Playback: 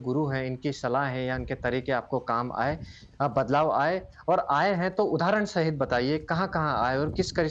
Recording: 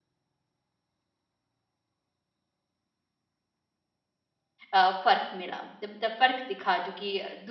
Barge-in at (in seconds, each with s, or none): 4.7 s